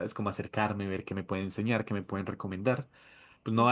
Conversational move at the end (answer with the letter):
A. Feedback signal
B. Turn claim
A